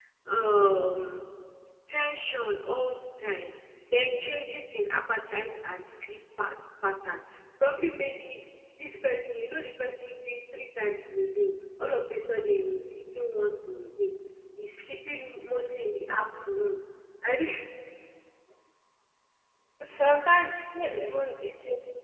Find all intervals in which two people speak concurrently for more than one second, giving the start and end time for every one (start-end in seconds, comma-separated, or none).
none